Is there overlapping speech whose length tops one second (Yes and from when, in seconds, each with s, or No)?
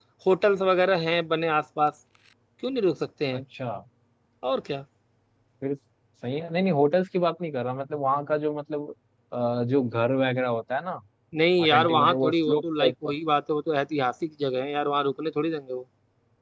Yes, from 11.6 s